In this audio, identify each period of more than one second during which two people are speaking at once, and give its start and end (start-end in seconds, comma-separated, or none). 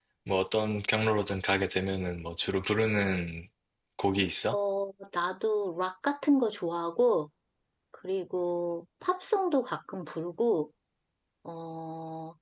none